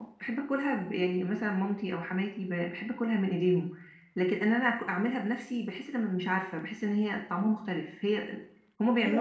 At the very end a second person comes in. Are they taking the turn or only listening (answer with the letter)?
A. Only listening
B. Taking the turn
B